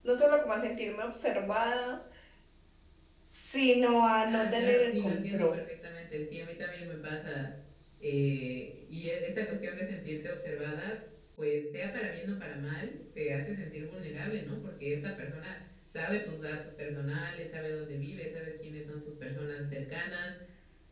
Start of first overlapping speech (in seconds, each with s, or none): 4.3 s